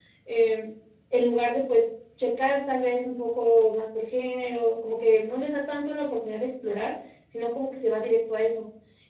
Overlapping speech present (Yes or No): No